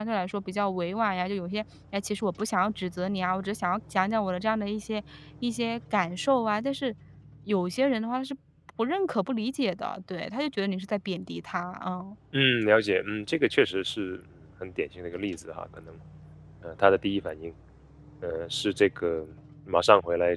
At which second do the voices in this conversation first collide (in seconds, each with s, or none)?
none